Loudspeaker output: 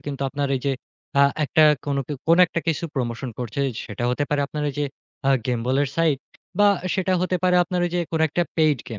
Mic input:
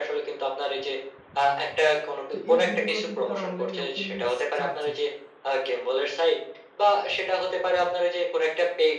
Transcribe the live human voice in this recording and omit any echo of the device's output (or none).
তো এই ভিডিওগুলো কিন্তু তারা অনলাইনে ওপেনলি স ছাড়ছে।